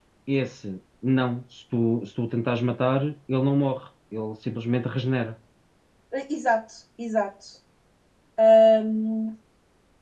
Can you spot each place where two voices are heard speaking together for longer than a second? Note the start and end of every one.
none

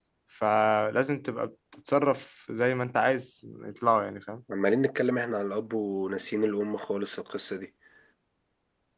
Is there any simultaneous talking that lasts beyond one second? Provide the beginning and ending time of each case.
none

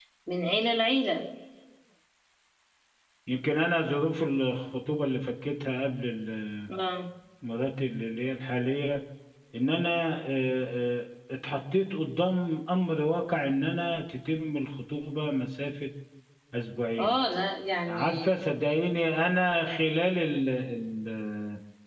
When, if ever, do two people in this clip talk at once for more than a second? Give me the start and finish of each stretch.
none

